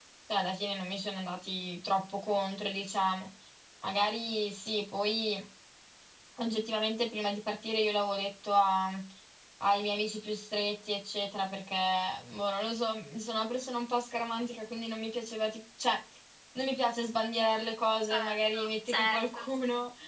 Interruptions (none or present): present